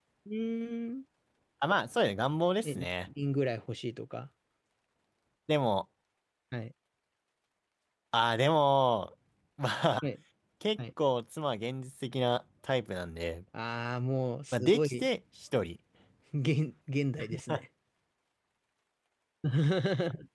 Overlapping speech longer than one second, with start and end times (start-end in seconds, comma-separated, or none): none